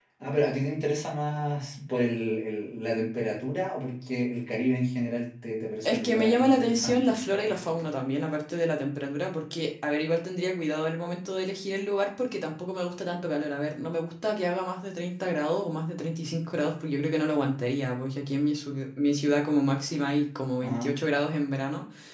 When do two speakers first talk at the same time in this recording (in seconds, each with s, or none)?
5.8 s